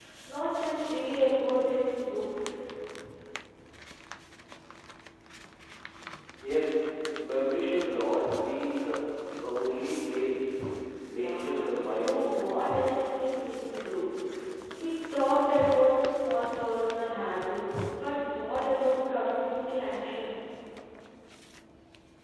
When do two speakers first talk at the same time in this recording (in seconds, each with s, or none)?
11.1 s